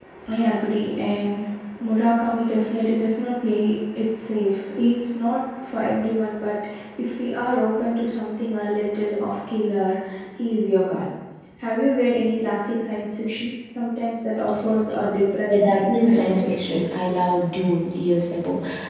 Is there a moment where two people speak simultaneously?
Yes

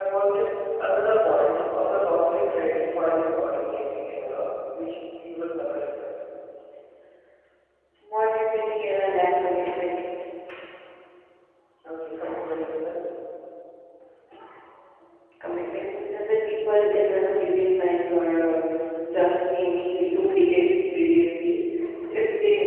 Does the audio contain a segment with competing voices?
No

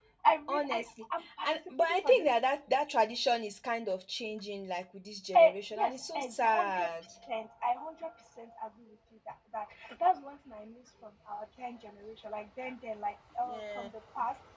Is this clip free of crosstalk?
No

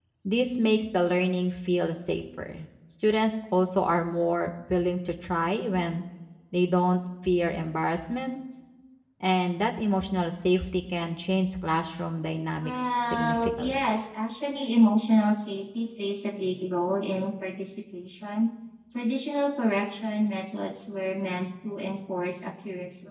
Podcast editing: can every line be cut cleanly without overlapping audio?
No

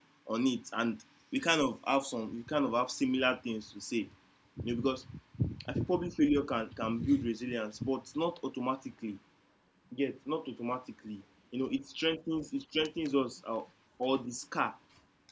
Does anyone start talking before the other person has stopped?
No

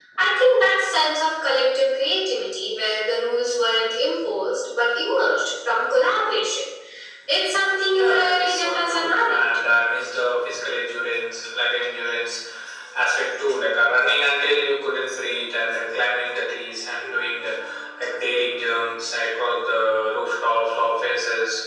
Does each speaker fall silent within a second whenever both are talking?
No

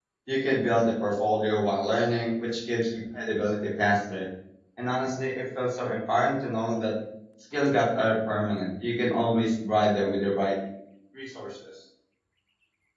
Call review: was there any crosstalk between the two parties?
No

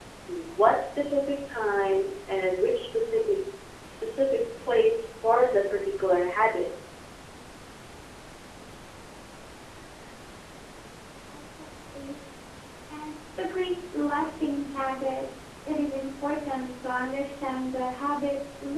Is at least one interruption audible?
No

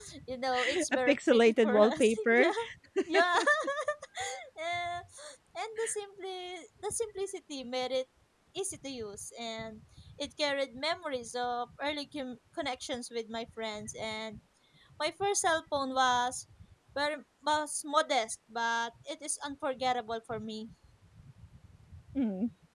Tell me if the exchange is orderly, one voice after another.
No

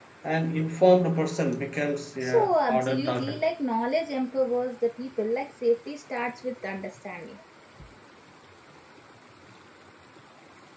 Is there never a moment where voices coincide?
No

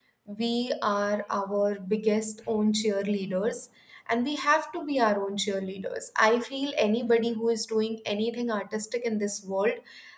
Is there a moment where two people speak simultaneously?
No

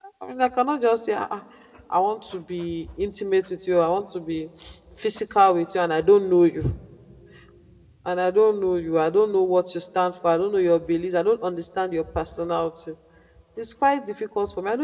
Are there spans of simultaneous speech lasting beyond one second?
No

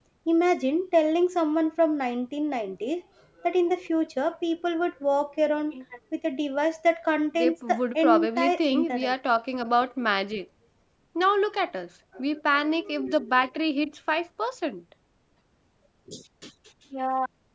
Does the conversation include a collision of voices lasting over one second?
Yes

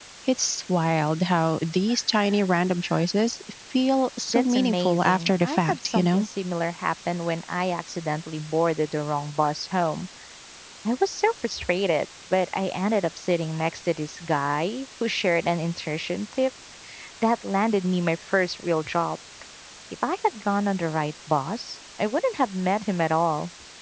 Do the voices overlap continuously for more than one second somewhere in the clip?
Yes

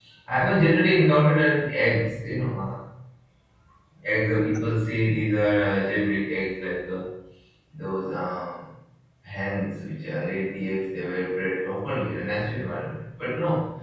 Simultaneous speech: No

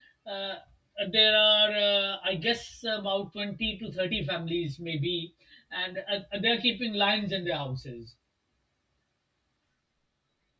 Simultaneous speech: No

